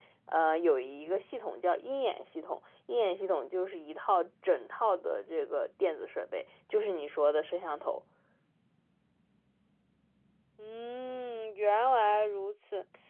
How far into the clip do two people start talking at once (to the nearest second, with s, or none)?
none